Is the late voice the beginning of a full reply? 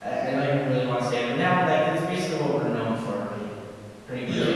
No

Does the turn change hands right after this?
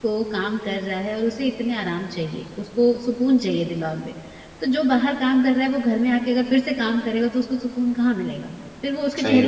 Yes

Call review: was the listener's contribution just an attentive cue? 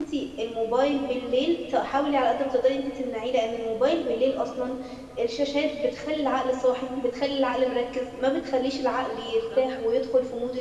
Yes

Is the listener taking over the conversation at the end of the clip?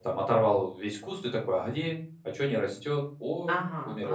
Yes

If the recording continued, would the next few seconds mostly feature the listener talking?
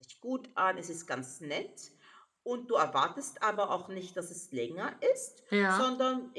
No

